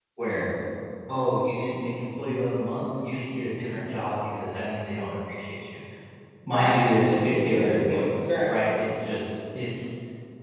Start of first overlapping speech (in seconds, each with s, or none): 6.5 s